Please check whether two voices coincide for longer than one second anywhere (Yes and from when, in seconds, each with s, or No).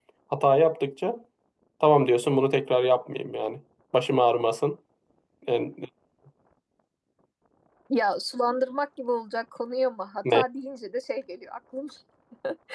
No